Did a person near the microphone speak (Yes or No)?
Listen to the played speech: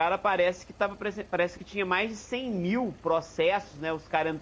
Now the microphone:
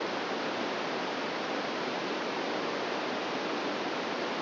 No